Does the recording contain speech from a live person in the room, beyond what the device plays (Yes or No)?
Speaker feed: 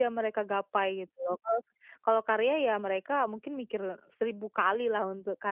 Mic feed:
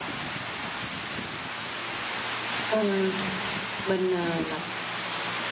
Yes